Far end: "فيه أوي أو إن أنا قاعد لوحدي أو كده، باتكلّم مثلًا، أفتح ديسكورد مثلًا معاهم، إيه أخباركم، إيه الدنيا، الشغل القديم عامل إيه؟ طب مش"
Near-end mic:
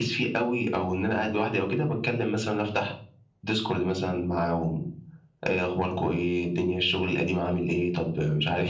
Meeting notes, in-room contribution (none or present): none